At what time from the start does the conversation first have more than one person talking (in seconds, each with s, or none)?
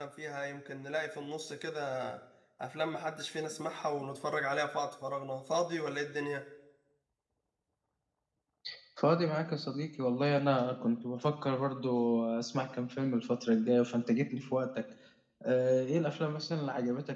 none